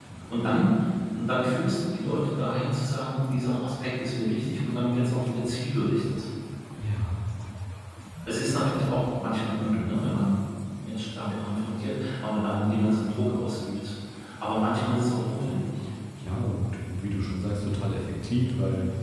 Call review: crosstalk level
none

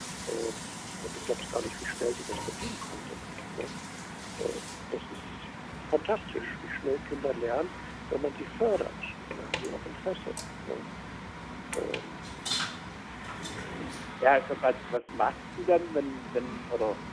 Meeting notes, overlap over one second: none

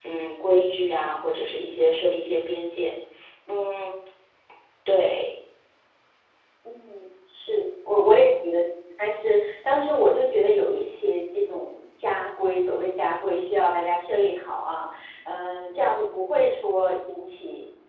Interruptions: none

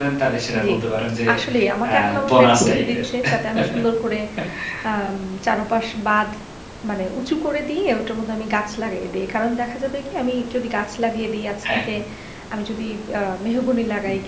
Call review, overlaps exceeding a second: present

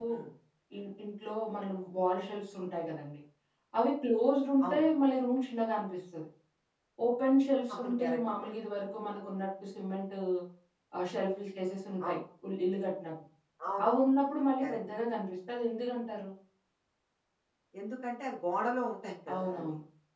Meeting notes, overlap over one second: none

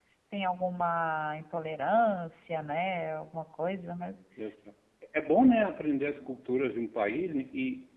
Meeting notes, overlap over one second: none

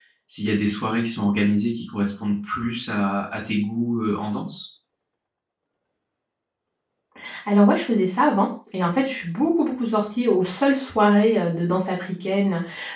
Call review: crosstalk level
none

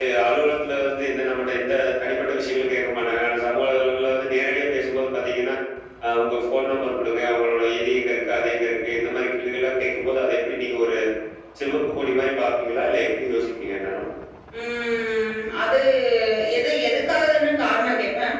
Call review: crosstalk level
none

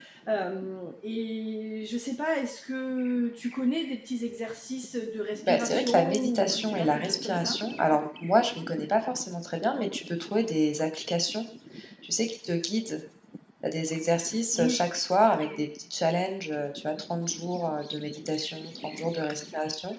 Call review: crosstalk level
present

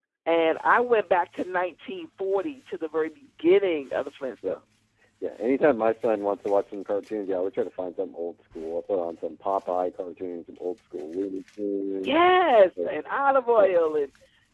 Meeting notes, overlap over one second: none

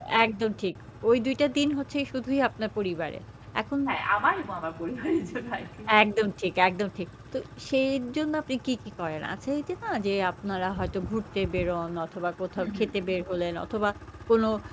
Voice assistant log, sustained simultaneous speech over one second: none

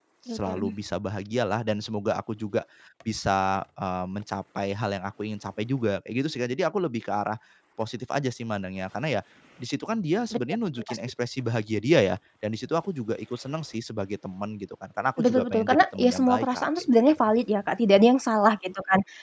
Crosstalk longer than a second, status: present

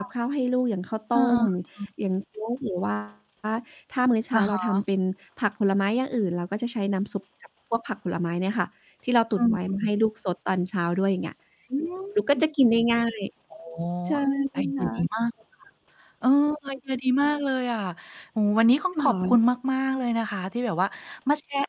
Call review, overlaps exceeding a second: none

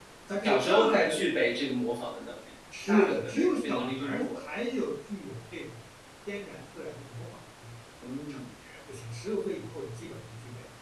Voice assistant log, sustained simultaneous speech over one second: present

